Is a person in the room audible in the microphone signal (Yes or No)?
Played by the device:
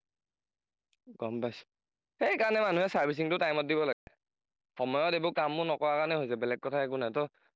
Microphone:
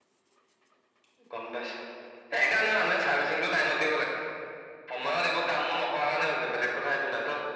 No